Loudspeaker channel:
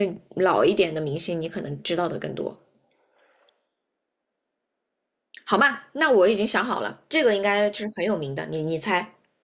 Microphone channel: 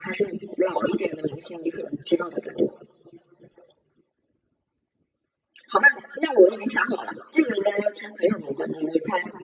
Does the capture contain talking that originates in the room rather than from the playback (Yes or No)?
No